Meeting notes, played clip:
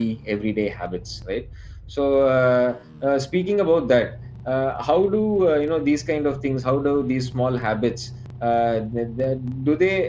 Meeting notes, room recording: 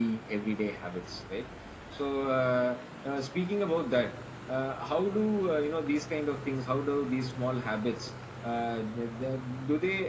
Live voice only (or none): none